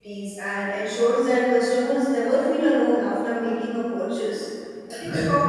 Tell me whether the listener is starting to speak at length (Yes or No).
No